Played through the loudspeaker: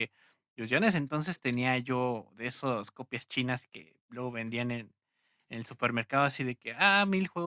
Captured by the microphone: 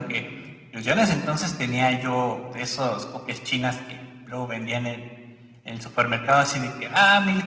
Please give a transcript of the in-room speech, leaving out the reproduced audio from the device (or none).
none